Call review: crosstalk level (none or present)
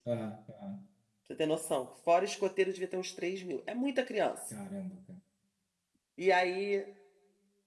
none